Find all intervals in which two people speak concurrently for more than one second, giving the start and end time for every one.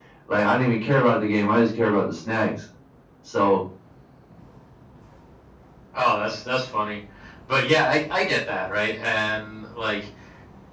none

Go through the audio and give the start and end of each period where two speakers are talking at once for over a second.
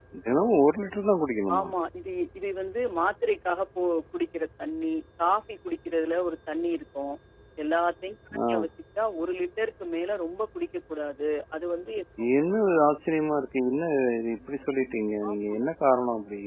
none

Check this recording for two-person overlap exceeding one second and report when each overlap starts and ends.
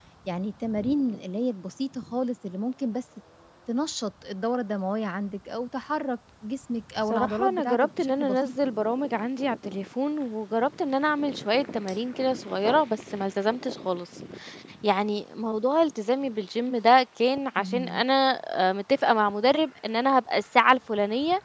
7.1-8.4

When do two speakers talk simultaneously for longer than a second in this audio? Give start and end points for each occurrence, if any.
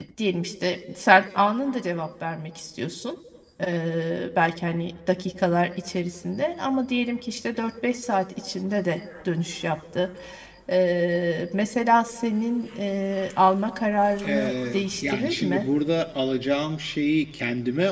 14.2-15.7

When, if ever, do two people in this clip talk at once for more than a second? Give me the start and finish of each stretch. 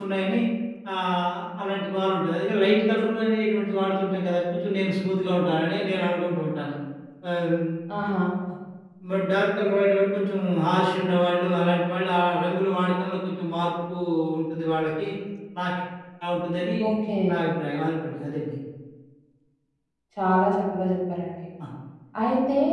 none

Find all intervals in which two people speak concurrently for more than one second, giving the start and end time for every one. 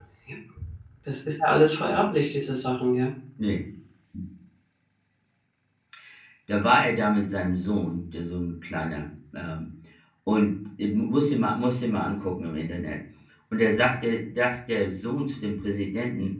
none

